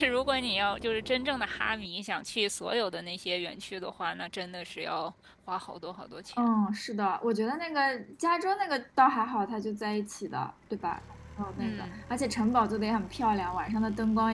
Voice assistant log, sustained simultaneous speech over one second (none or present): none